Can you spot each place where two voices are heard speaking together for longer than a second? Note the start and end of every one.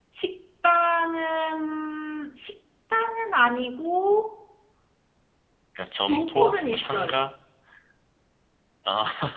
6.0-7.3

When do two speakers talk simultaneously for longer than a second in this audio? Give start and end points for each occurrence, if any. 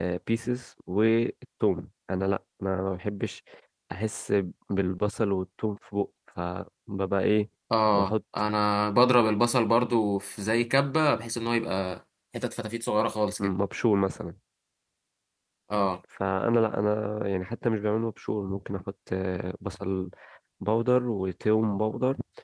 none

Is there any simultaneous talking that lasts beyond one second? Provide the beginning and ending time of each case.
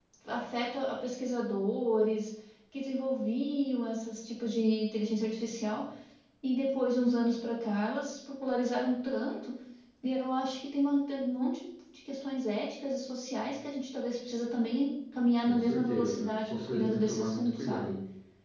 15.5-18.0

